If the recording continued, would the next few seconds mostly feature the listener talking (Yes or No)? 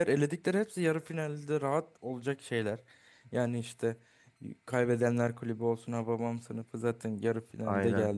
No